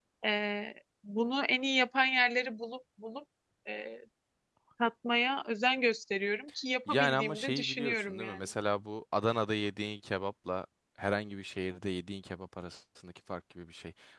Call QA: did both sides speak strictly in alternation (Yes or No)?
No